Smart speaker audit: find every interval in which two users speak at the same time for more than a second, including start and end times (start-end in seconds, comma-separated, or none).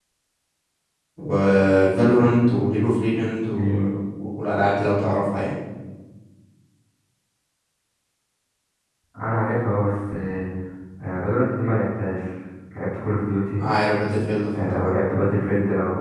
none